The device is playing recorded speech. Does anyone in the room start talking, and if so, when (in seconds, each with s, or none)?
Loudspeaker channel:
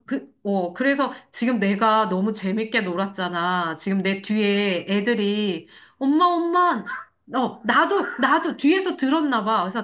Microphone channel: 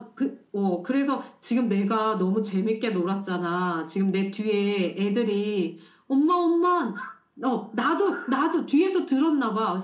none